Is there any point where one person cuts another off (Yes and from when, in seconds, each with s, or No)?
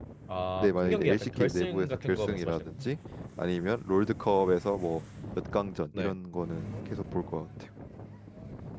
Yes, from 0.6 s